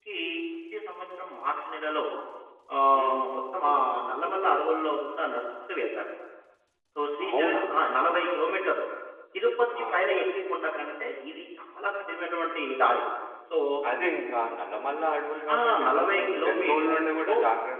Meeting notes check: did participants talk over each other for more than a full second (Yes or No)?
Yes